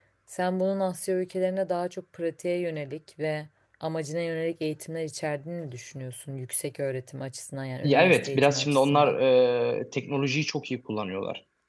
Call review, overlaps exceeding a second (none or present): present